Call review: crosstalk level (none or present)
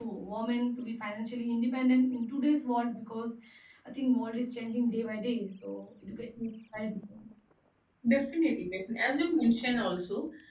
none